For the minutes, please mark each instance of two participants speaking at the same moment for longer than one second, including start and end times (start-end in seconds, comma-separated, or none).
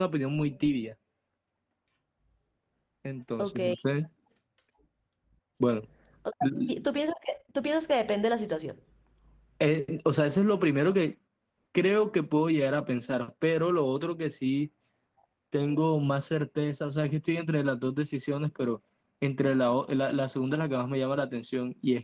none